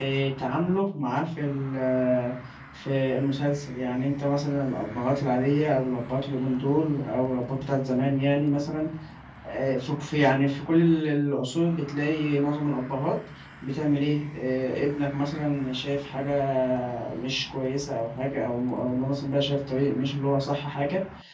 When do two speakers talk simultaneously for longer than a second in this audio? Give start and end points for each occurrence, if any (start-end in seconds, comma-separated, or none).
none